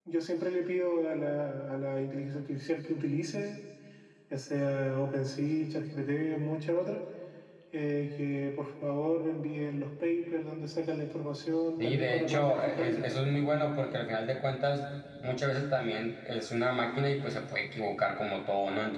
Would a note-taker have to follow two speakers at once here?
Yes, from 11.8 s

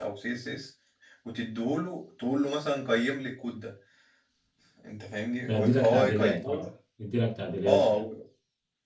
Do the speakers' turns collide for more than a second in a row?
Yes, from 5.5 s

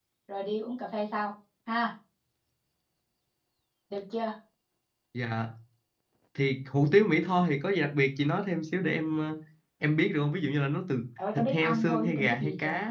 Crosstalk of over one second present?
Yes, from 11.2 s

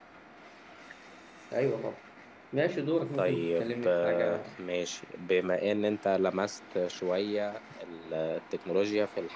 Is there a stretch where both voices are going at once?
Yes, from 3.1 s

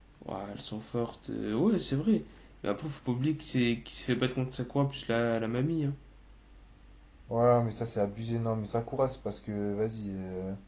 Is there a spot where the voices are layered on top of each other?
No

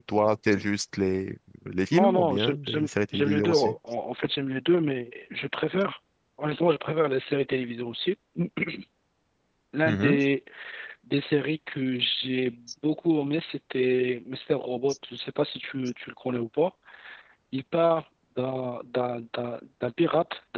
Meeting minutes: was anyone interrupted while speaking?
Yes, from 1.9 s

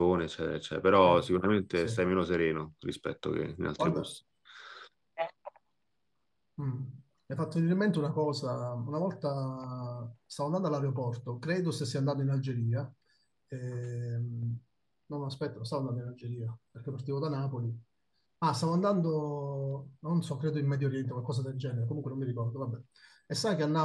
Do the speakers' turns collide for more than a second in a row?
No

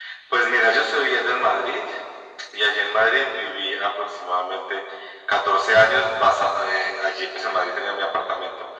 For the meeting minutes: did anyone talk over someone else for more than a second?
No

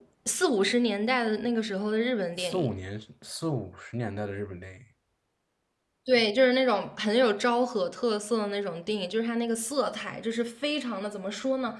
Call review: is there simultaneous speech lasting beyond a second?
No

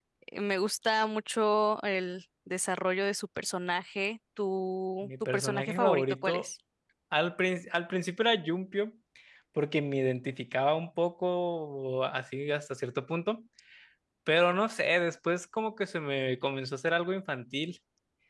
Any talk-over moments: Yes, from 5.0 s

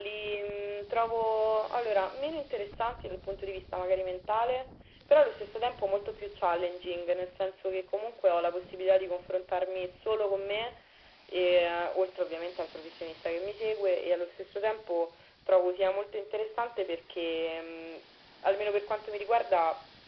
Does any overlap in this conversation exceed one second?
No

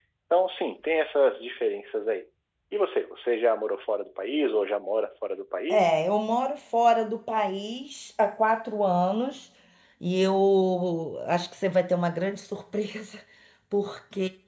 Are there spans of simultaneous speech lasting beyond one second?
No

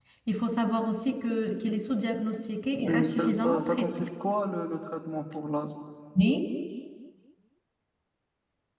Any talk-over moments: Yes, from 2.8 s

